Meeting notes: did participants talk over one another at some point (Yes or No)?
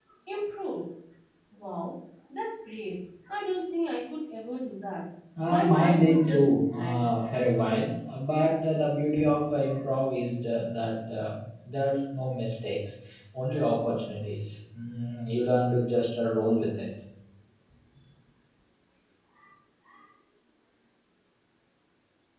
Yes